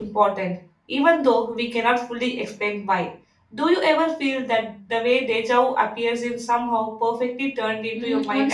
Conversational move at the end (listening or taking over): taking over